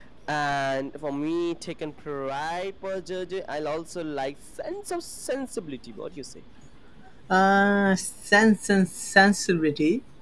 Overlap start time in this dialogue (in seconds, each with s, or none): none